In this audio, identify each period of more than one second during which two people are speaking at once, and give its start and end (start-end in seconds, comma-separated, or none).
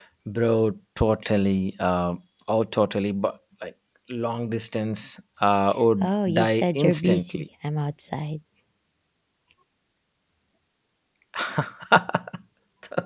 6.0-7.4